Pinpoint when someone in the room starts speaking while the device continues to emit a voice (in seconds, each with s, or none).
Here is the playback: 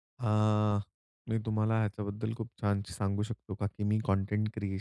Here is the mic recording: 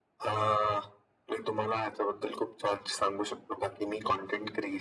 none